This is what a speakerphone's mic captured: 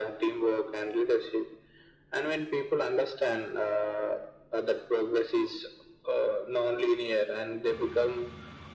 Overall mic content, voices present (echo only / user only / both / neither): echo only